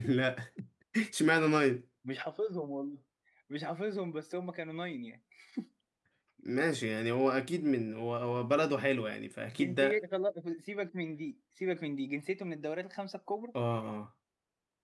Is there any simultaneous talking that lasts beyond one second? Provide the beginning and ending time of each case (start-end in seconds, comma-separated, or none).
none